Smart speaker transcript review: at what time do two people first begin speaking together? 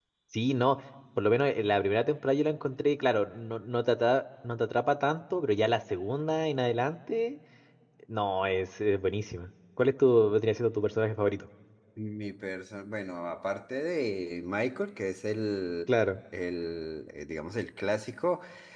none

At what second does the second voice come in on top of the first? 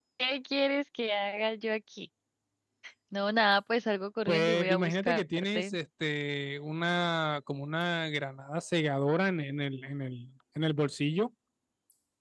4.3 s

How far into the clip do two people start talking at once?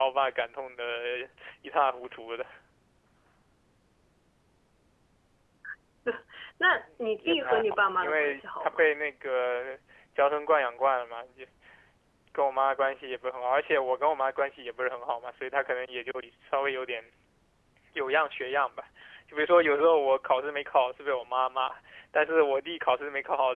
7.0 s

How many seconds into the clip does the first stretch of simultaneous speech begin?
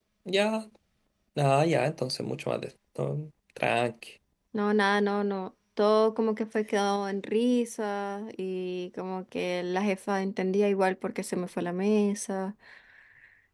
none

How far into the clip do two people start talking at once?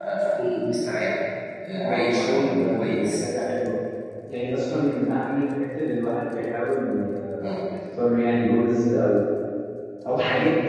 1.7 s

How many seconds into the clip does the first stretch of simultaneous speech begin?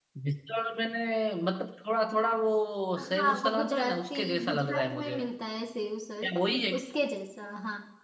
3.0 s

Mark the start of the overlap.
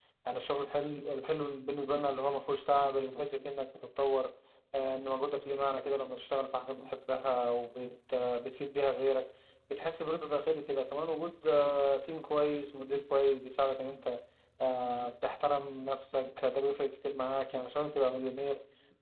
none

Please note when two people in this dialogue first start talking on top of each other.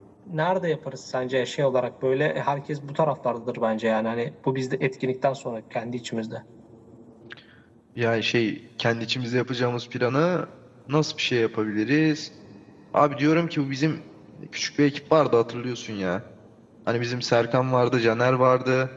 none

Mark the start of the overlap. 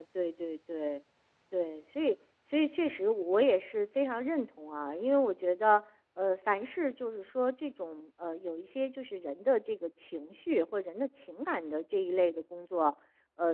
none

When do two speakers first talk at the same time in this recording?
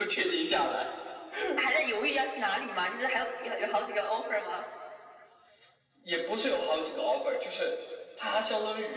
none

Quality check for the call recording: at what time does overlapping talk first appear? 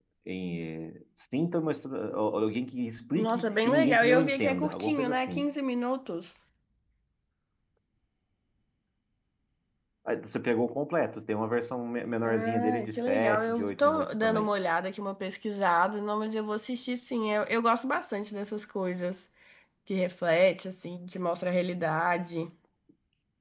3.2 s

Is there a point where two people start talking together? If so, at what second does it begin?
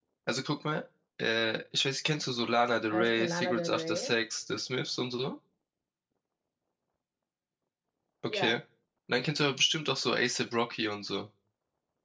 2.9 s

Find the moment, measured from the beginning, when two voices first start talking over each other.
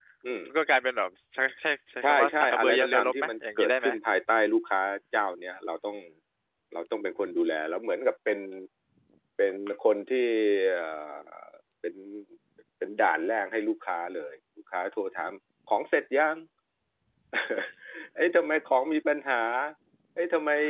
2.0 s

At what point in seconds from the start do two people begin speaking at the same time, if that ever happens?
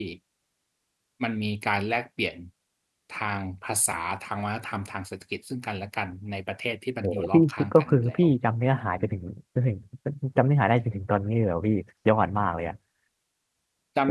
7.0 s

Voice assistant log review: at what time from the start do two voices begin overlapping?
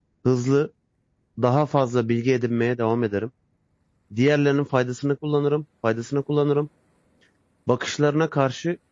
none

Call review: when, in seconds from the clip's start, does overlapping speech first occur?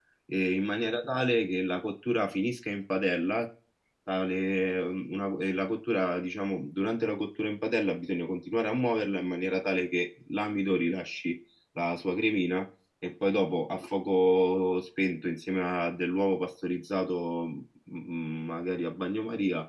none

